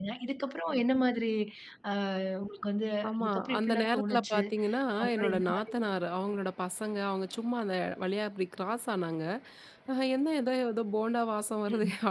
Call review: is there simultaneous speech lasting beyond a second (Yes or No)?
Yes